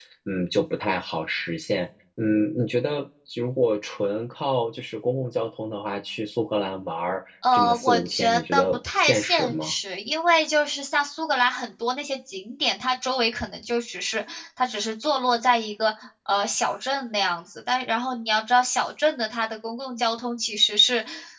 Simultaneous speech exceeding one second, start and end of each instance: 7.5-9.7

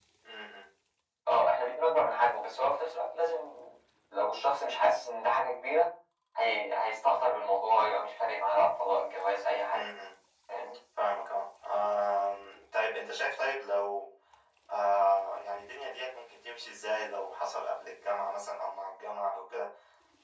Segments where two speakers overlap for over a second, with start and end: none

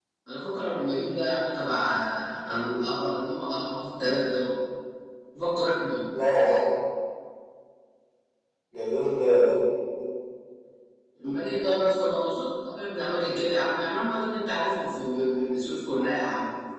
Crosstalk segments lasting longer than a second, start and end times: none

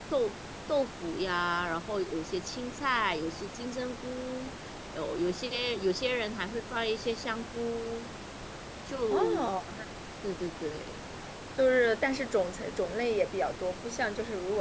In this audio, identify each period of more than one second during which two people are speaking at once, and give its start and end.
none

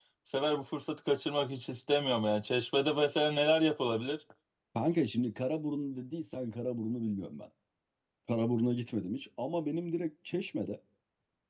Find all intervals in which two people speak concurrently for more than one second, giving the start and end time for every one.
none

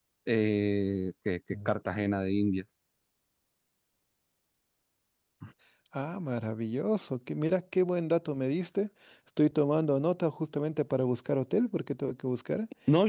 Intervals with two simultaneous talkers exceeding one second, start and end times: none

